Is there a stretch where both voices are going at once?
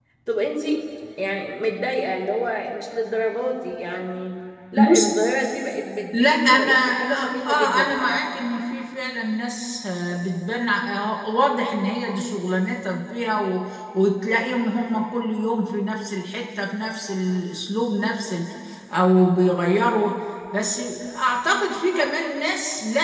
Yes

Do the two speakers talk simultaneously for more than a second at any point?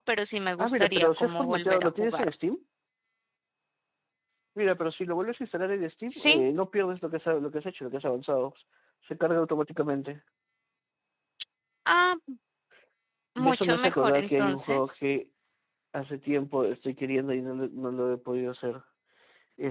Yes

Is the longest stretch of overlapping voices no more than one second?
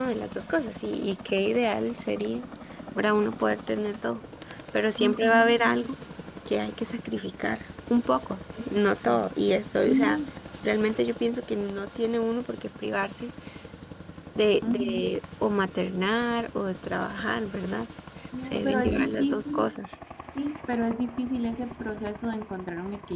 No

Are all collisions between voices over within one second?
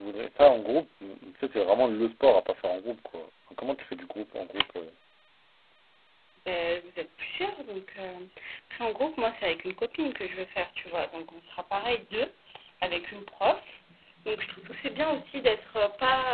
Yes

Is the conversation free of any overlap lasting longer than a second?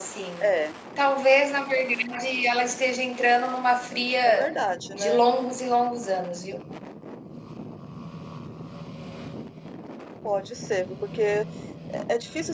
Yes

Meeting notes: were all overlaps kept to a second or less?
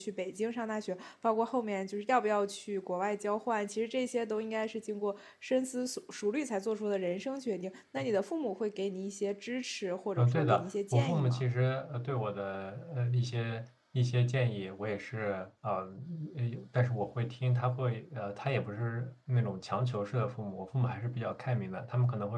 No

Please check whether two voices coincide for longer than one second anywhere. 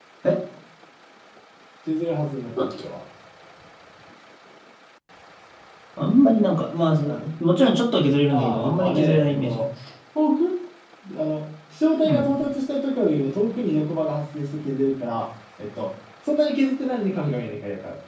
Yes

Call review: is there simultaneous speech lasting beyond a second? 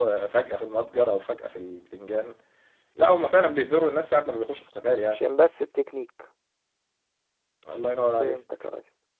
No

